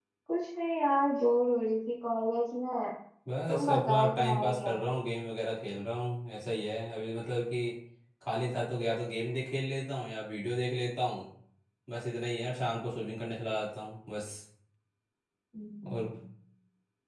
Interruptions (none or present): present